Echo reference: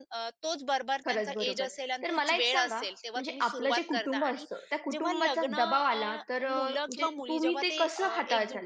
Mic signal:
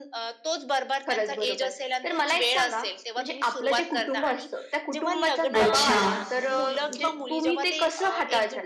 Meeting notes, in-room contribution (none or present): present